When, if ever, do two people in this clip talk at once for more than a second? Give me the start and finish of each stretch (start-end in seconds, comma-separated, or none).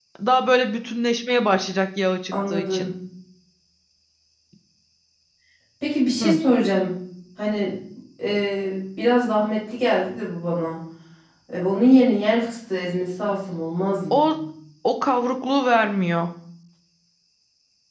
none